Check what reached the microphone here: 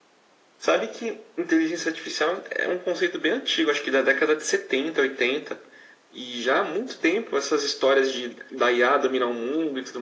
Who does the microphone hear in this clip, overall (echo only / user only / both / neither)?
echo only